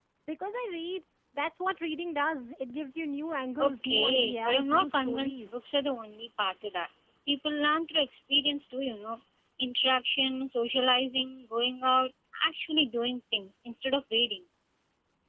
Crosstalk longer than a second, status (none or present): present